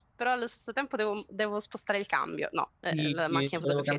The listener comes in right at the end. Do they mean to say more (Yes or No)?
Yes